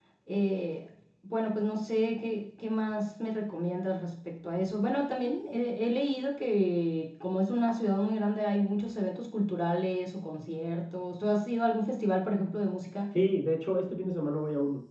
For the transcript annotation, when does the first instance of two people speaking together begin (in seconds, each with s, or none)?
none